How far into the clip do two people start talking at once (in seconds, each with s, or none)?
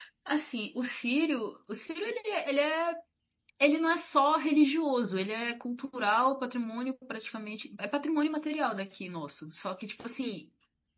none